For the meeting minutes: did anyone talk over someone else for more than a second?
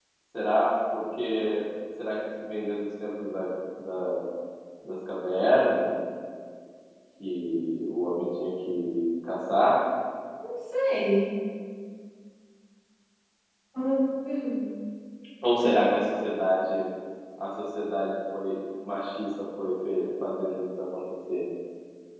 No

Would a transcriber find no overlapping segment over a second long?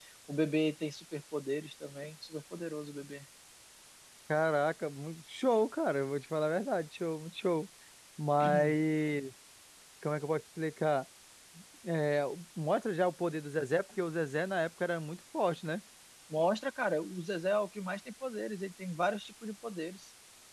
Yes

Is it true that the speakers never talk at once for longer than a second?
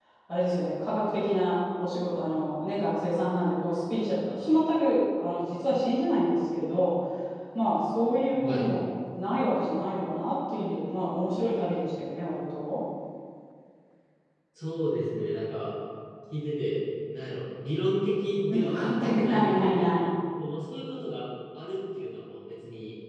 No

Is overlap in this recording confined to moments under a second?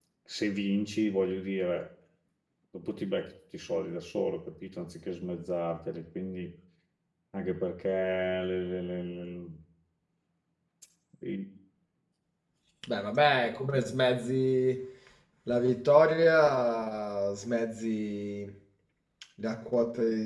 Yes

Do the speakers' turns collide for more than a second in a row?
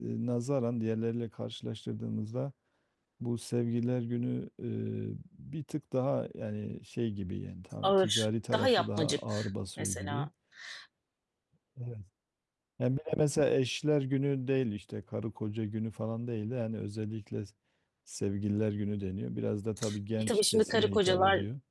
Yes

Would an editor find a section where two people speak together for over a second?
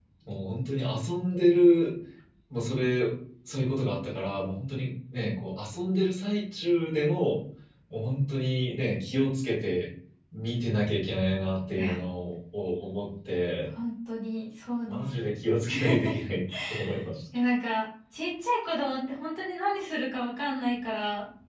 No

